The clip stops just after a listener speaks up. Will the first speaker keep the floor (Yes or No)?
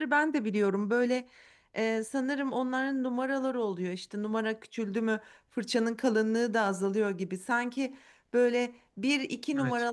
Yes